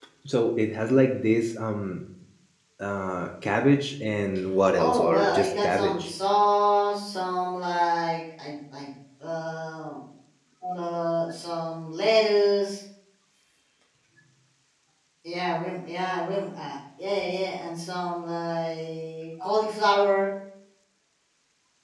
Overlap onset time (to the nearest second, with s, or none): 5 s